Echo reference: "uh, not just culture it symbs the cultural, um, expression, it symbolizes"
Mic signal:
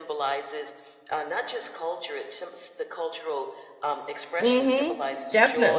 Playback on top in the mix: No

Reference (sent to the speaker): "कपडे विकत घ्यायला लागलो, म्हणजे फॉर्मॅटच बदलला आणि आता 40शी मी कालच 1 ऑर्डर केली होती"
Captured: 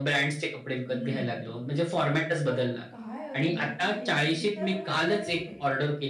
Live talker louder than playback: No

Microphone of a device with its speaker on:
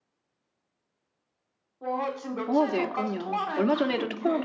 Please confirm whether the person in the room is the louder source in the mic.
Yes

